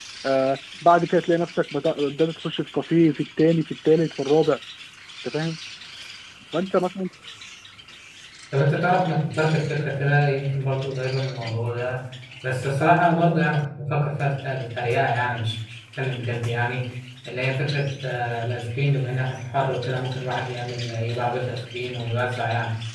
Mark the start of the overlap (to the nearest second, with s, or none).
none